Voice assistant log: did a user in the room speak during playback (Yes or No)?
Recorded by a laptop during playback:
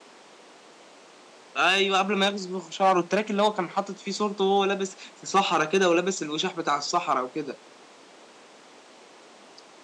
Yes